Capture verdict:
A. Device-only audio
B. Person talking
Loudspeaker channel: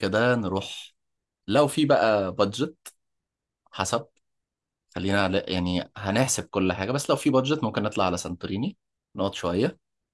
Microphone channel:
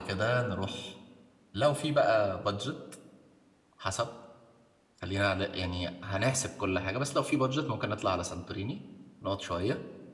A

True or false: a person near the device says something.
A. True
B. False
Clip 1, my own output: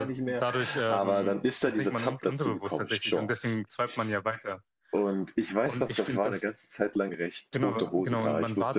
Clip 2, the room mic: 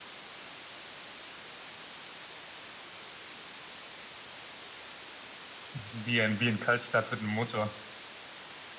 A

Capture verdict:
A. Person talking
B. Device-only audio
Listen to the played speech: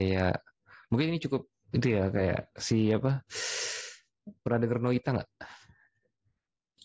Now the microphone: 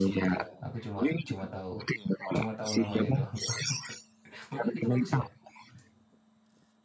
A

